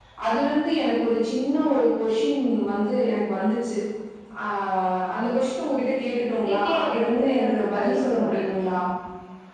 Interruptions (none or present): present